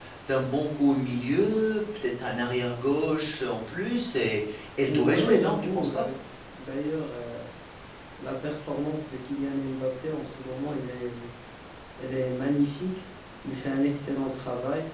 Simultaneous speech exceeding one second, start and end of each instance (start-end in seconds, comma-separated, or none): 4.9-6.1